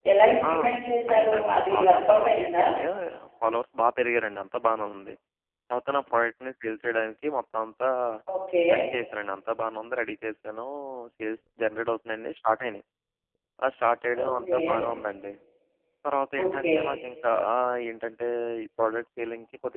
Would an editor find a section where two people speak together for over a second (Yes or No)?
Yes